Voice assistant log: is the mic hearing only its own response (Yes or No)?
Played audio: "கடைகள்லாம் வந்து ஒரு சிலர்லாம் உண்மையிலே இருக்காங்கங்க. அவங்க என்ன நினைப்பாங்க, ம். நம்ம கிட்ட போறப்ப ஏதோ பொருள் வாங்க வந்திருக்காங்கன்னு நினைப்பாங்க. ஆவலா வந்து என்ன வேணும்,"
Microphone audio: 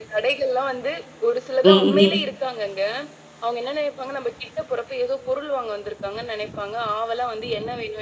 No